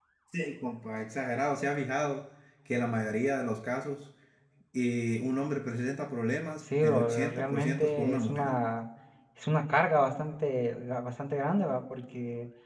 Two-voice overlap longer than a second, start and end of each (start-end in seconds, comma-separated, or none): 6.8-8.5